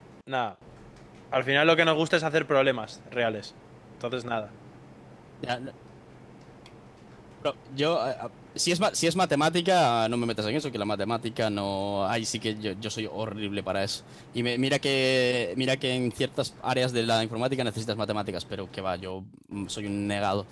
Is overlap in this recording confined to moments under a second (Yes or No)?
Yes